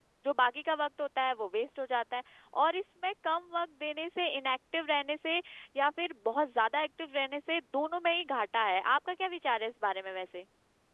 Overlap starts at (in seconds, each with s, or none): none